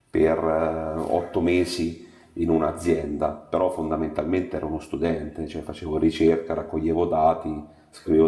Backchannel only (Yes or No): Yes